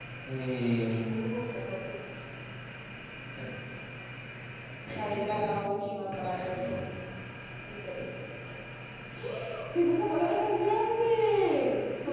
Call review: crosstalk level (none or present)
present